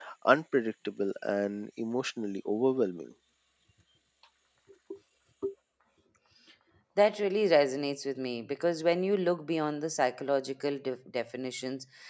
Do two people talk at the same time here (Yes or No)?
No